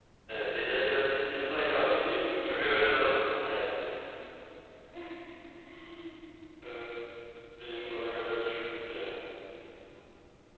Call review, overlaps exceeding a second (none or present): present